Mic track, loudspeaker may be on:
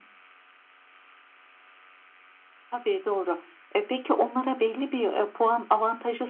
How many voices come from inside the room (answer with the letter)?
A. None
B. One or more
A